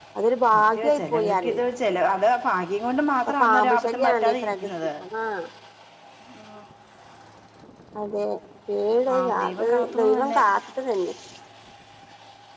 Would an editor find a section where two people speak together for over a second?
Yes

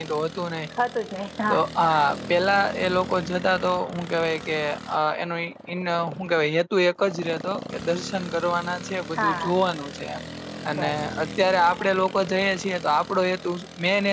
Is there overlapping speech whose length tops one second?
No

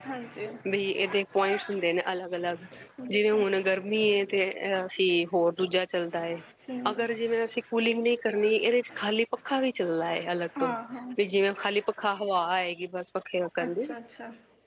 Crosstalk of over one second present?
No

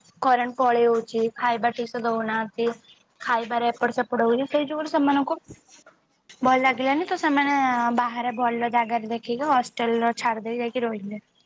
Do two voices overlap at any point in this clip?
No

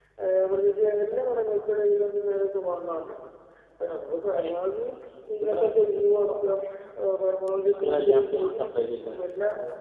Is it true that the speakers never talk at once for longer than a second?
No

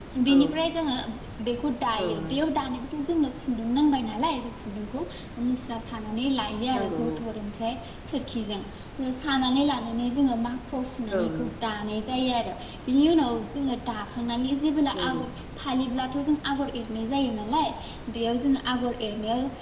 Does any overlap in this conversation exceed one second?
No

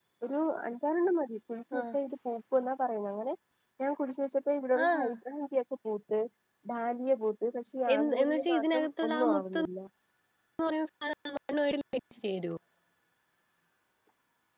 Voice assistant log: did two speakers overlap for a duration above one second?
Yes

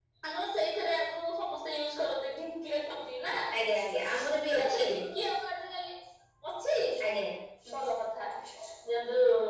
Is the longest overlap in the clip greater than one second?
No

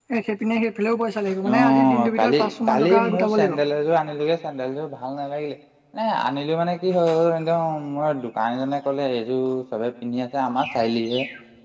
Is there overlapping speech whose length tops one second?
Yes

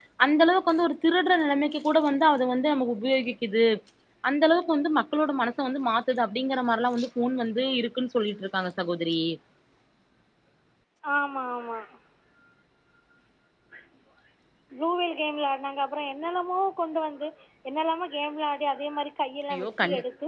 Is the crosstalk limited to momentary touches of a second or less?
Yes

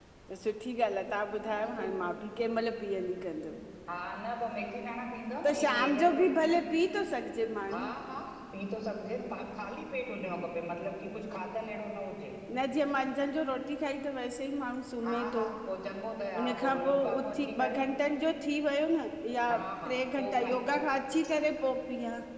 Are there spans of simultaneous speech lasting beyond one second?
Yes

